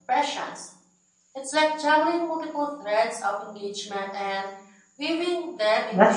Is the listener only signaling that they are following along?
No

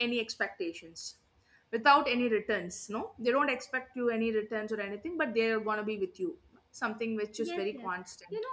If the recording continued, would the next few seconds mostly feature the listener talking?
Yes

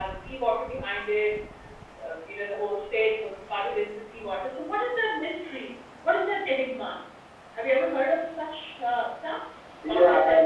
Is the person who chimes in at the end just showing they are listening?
No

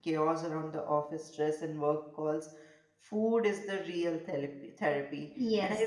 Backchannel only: No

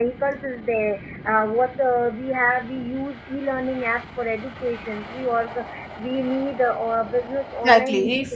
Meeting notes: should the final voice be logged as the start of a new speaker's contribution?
Yes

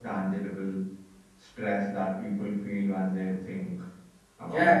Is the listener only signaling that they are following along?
No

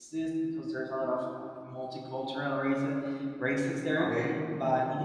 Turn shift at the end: No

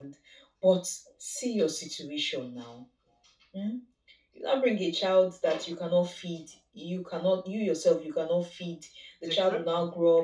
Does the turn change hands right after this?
No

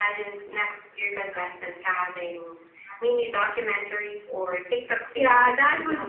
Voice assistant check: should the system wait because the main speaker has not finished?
No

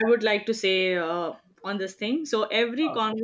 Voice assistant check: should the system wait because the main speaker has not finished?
Yes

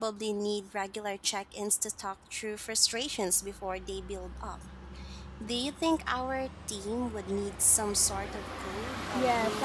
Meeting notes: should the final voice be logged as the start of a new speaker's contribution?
Yes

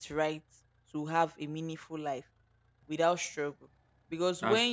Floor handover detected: No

